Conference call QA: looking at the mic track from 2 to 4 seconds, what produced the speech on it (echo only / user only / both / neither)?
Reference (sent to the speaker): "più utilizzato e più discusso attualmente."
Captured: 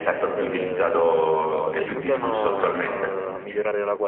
both